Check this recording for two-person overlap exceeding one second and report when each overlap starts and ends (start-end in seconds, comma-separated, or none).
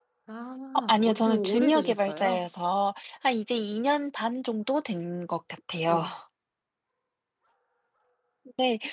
0.8-2.5